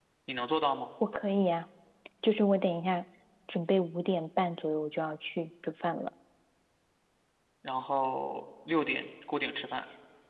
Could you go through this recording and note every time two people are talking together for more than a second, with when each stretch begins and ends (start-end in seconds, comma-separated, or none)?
none